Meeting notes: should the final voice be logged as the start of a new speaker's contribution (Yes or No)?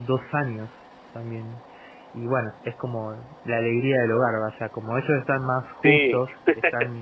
No